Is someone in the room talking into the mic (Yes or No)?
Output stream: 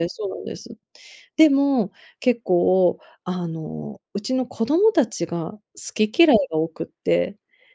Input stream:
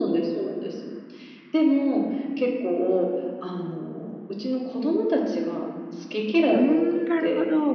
Yes